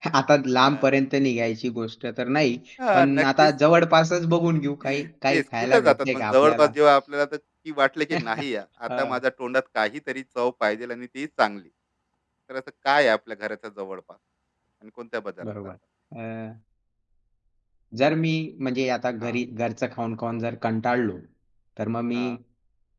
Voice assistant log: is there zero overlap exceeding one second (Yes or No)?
No